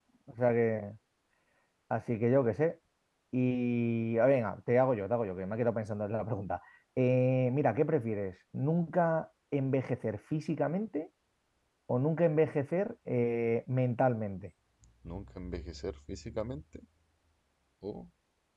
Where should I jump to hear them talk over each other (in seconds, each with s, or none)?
none